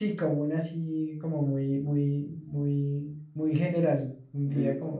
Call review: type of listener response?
taking over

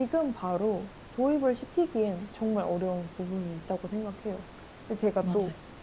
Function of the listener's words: listening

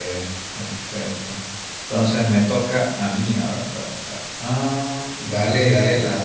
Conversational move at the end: taking over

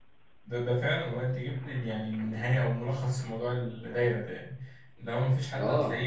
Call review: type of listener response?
listening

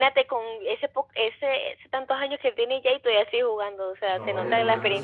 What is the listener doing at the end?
taking over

